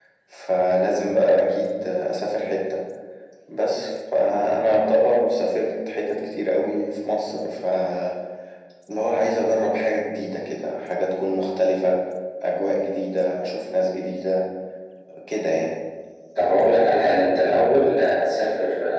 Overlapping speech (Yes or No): No